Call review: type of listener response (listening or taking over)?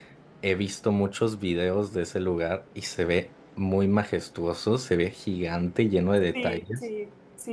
taking over